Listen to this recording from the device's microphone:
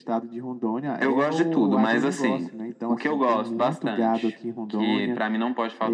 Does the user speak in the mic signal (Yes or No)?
No